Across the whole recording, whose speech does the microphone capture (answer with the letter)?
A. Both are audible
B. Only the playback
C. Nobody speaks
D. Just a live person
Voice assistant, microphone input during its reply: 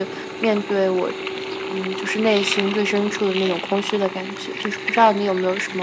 B